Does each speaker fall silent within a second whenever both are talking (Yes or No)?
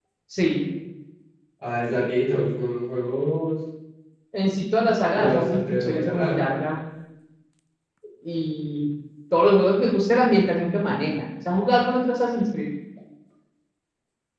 No